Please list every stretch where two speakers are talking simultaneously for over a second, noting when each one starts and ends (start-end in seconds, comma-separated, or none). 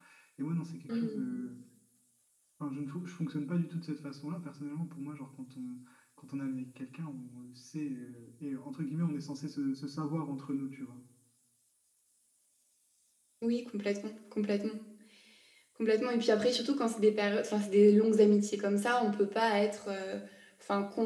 none